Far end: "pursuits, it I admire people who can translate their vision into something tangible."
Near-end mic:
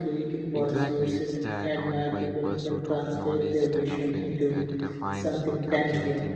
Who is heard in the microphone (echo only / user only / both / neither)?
both